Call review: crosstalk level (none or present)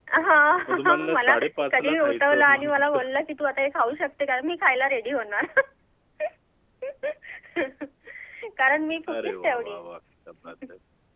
present